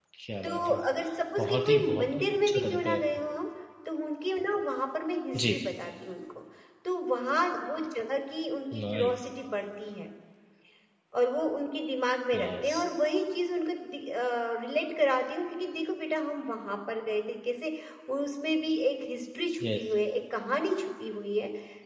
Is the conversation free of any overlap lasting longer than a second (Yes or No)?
No